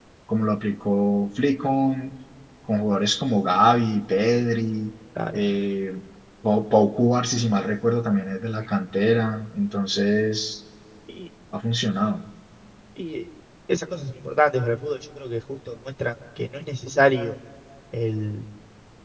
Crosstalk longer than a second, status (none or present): none